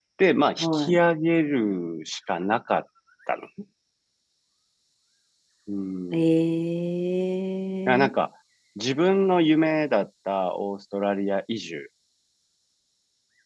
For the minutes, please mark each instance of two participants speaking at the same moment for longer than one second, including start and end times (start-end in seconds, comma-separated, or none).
none